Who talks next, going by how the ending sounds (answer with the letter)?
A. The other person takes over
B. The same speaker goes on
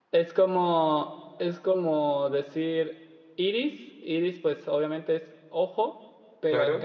B